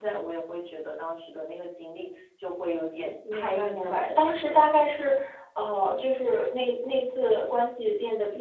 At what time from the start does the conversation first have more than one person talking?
3.2 s

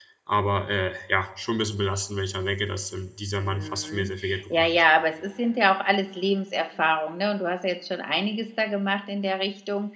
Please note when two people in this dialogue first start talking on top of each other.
3.5 s

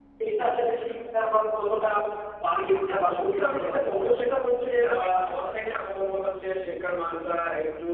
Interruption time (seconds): 2.9 s

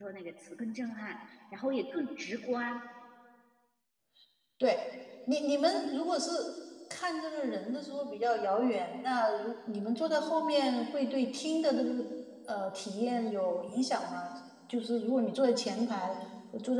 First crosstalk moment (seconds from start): none

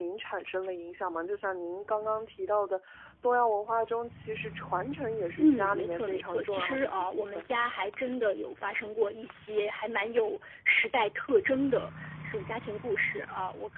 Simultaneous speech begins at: 5.4 s

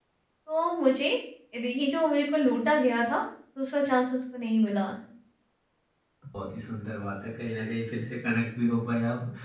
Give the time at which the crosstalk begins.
none

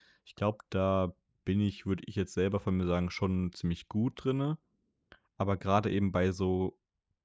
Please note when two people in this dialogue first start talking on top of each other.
none

